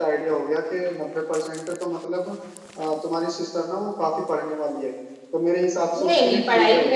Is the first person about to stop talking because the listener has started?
Yes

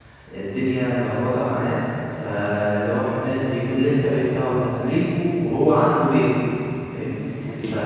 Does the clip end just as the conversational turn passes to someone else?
No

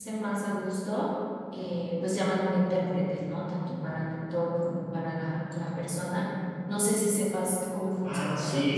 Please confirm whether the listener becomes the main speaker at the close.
Yes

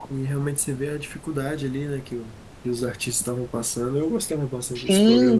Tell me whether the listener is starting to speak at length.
Yes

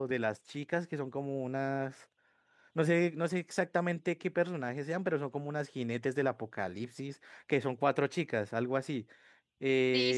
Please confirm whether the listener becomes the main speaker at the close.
Yes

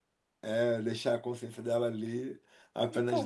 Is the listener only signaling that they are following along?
No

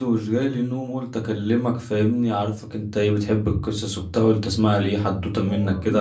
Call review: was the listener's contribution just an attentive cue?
No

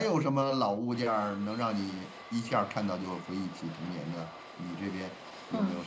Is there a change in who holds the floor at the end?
Yes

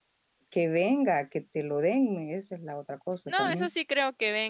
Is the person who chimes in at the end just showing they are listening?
No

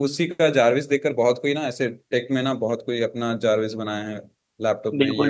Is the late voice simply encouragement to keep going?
No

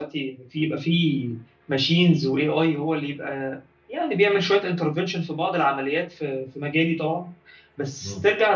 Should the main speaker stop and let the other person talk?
No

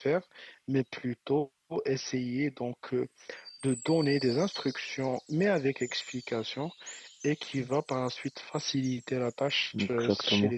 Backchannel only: Yes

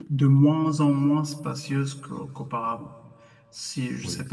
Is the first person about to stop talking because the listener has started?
No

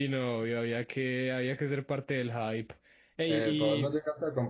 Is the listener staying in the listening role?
No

